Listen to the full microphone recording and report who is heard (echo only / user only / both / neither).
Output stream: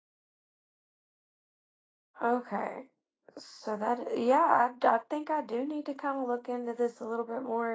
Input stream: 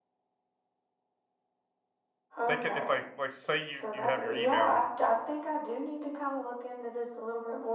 both